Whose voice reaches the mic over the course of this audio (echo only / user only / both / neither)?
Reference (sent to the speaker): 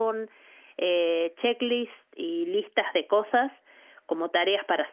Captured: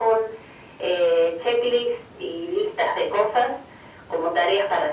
echo only